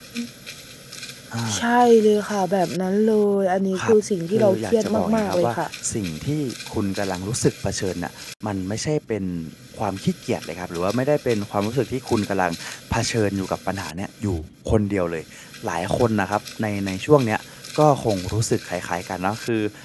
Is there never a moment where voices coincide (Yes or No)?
No